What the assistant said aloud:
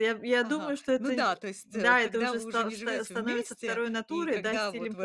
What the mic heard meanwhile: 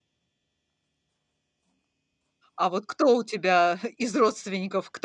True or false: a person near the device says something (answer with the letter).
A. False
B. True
B